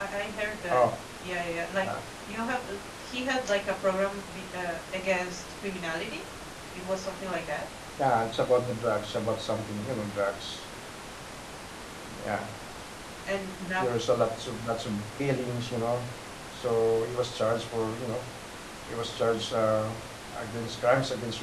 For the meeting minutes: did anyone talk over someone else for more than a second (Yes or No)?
No